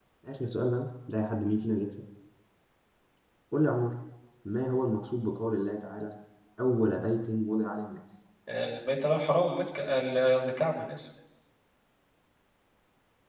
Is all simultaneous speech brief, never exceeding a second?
Yes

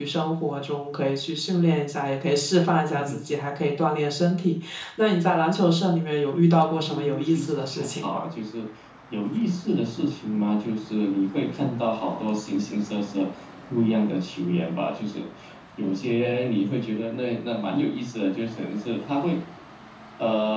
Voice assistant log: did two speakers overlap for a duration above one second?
Yes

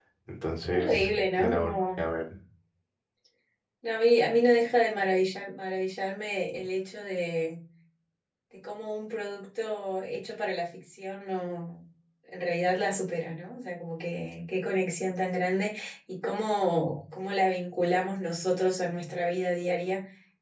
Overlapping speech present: Yes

